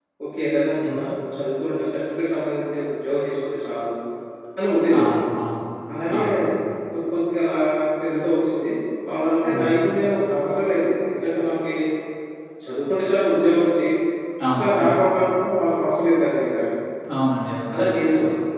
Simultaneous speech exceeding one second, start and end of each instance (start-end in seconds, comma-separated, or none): none